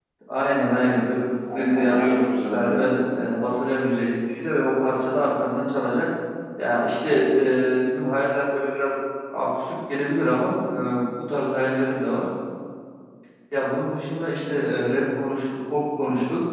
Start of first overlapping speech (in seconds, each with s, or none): 1.5 s